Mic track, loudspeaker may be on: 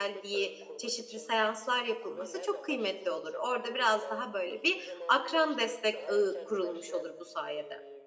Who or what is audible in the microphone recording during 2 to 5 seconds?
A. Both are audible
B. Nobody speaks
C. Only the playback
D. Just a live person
A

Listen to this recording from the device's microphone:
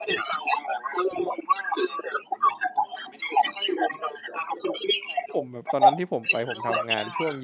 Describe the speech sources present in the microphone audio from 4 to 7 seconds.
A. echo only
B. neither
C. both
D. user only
C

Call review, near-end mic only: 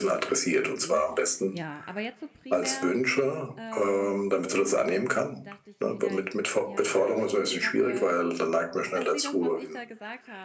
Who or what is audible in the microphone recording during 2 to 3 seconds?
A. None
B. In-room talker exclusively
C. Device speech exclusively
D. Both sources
D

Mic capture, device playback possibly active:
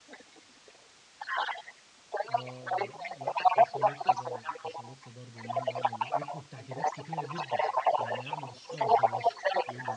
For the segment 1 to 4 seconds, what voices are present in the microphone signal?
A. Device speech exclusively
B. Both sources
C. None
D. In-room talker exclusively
B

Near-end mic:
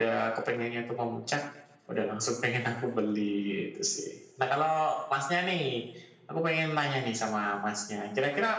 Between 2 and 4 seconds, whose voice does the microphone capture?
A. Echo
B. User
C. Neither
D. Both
A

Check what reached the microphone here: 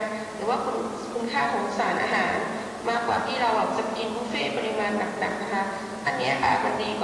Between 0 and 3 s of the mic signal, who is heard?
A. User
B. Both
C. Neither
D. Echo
D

